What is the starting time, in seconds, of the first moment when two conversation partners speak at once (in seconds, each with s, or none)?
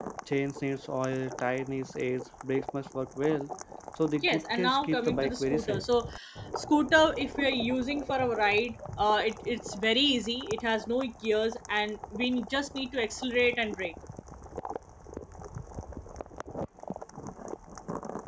4.2 s